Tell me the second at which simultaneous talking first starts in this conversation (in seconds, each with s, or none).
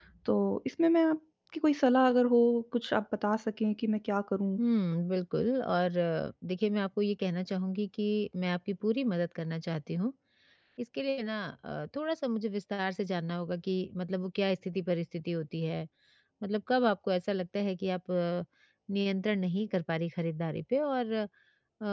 none